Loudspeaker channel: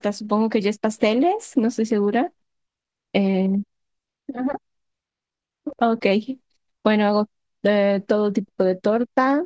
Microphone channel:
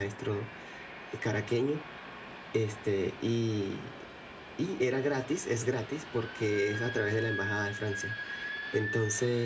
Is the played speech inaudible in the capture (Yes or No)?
Yes